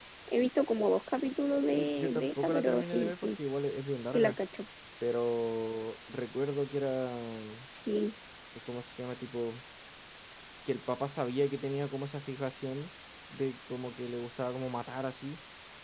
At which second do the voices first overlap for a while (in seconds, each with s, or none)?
1.7 s